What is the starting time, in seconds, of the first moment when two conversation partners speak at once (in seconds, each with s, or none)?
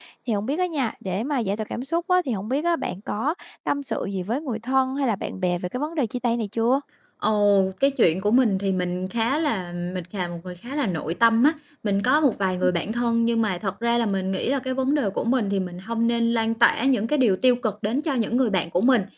none